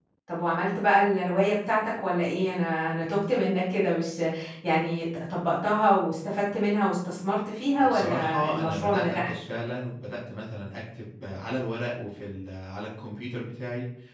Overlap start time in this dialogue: 7.8 s

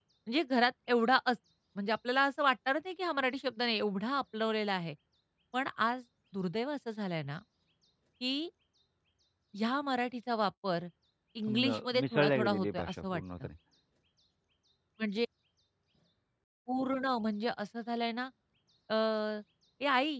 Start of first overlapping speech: 11.6 s

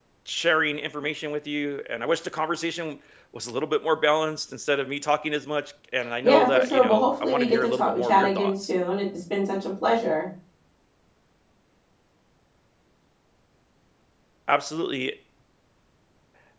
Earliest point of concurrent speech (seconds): 6.2 s

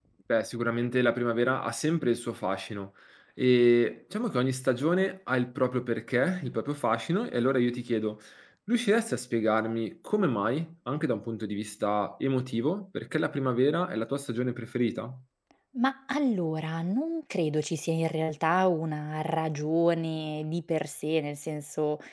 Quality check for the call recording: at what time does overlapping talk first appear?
none

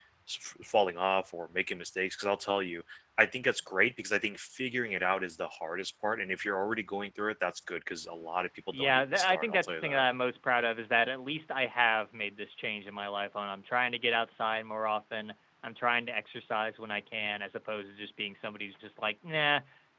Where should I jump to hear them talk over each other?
8.7 s

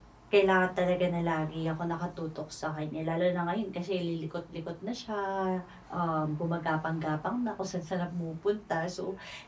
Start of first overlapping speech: none

